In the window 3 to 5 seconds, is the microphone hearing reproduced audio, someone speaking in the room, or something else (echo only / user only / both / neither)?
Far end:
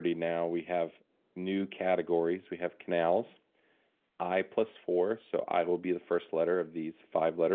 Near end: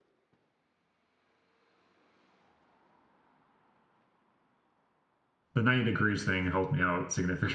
neither